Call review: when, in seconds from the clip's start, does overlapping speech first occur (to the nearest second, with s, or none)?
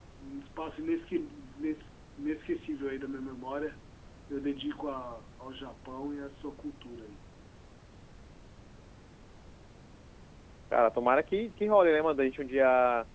none